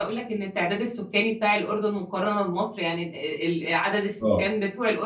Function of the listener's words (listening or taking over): listening